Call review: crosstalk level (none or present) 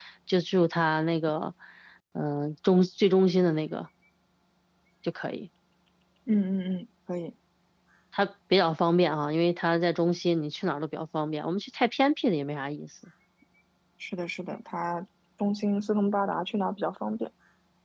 none